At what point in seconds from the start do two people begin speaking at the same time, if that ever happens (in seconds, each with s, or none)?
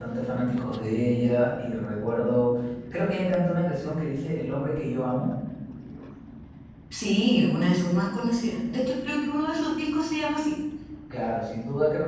none